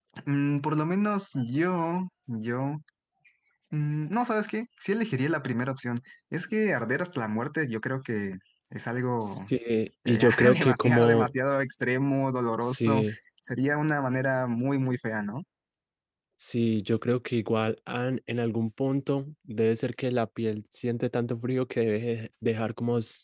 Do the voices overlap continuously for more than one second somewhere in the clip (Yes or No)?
Yes